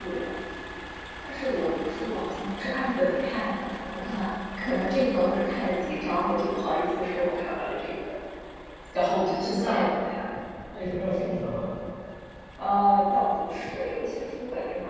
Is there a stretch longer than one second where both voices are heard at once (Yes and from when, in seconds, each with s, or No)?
No